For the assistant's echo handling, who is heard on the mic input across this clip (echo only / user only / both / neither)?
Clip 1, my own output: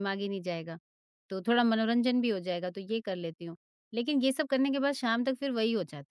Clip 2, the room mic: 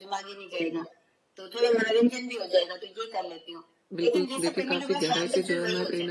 both